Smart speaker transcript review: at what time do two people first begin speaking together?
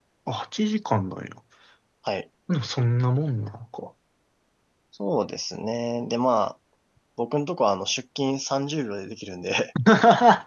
none

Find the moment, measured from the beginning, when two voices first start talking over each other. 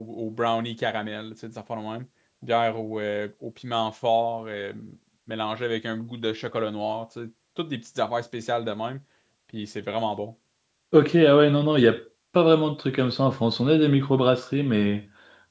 none

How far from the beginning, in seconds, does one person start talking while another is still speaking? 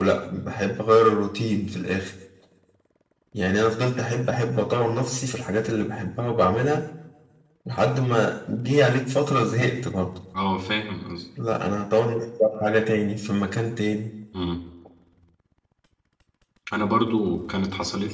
none

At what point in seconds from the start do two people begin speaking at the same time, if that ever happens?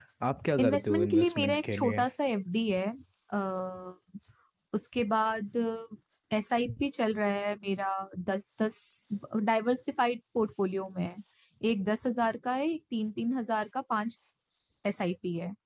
0.6 s

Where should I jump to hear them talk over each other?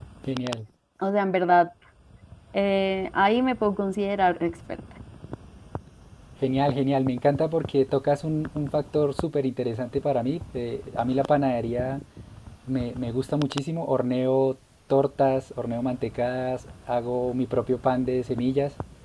none

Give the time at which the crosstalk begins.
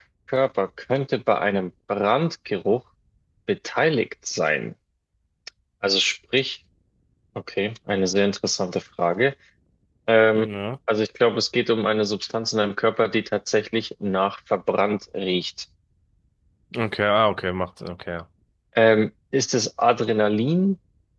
none

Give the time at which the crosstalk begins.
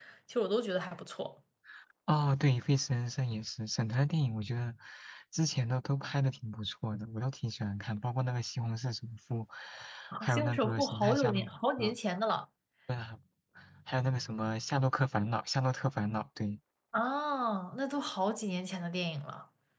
10.2 s

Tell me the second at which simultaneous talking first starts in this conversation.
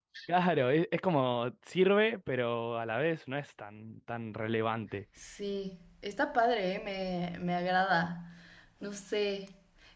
none

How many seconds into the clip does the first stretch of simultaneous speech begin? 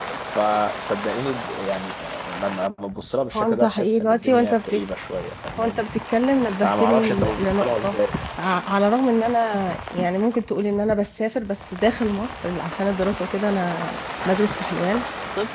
3.3 s

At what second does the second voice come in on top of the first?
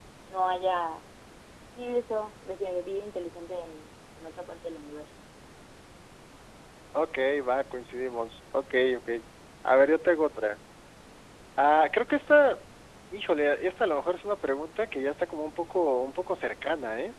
none

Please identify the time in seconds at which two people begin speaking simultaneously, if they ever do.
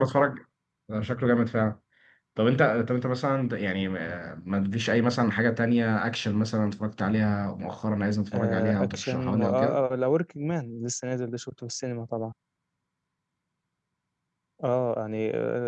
8.3 s

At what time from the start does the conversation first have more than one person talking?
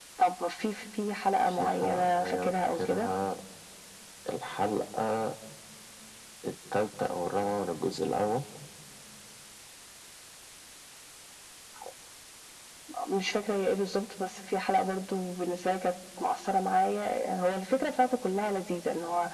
1.5 s

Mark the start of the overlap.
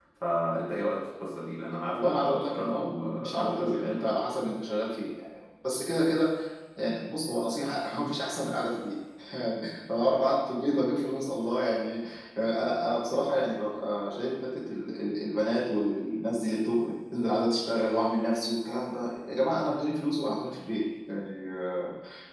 1.9 s

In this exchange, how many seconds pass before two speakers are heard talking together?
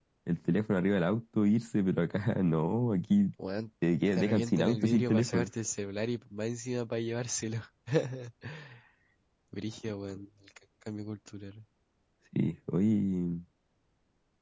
4.1 s

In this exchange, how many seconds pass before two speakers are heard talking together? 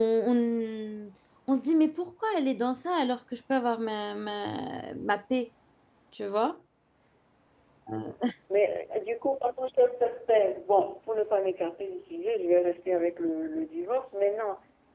none

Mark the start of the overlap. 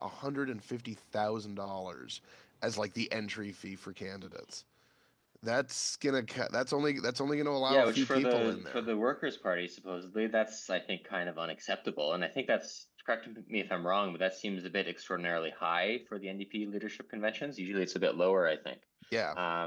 7.7 s

